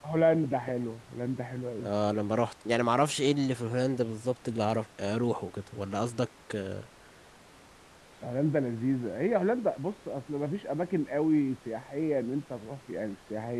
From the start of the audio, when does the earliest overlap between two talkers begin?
none

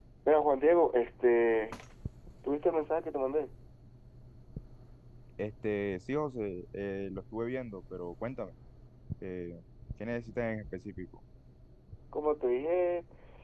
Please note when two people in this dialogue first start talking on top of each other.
none

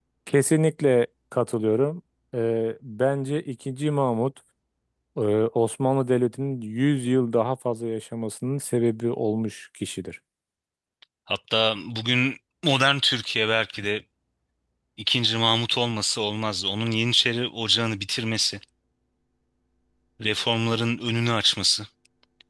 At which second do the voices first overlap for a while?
none

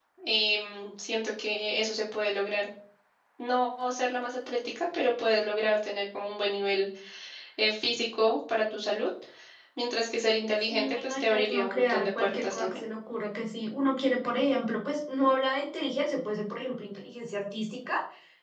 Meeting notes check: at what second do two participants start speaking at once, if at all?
10.7 s

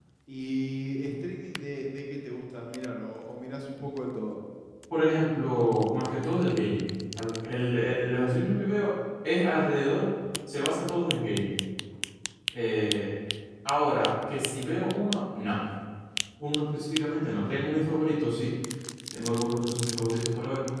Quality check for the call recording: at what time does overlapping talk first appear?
none

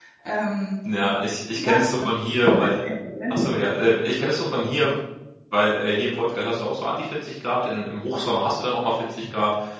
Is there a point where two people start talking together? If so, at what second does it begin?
1.6 s

